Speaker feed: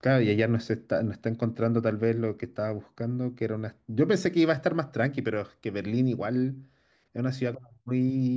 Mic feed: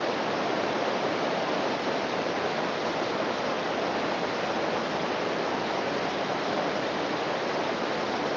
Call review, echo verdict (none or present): none